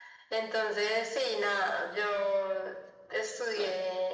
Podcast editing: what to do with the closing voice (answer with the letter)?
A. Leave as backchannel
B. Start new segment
A